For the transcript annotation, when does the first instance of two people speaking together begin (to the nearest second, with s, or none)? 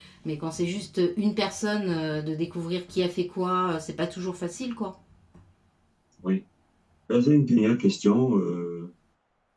none